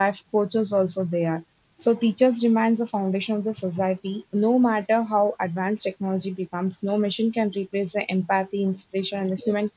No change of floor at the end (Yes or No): Yes